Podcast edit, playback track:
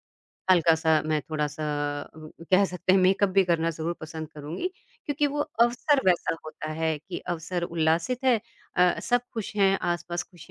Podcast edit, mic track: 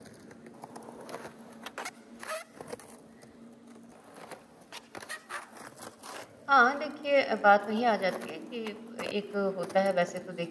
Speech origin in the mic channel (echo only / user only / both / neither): user only